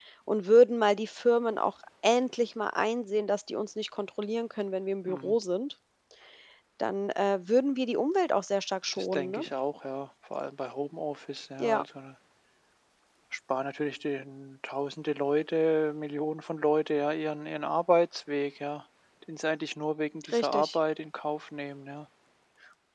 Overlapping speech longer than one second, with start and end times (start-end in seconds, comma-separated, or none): none